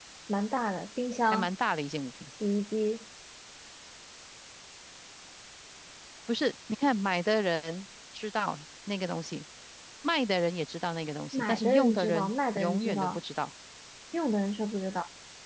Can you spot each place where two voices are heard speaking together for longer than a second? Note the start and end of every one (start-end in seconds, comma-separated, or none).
11.3-13.2